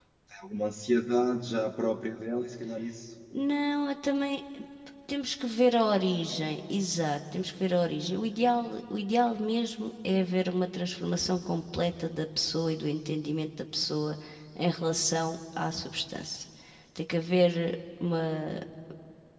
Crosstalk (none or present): none